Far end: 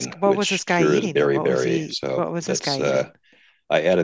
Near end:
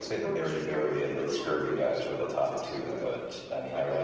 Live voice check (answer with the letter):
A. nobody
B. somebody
B